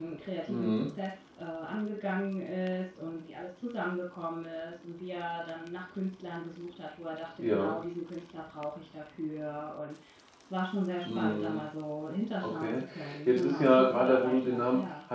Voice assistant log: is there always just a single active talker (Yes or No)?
No